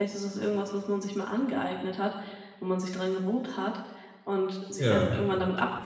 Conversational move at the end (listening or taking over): listening